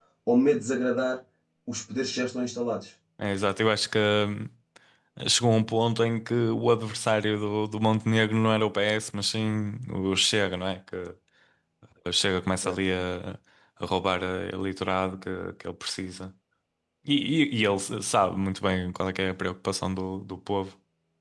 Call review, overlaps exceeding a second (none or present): none